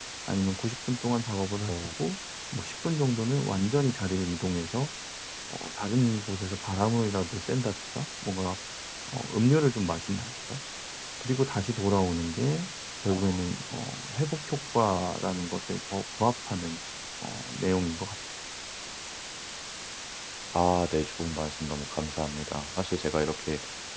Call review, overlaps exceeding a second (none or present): none